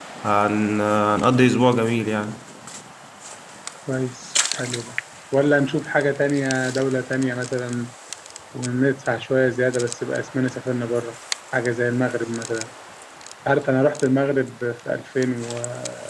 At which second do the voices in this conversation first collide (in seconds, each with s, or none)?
none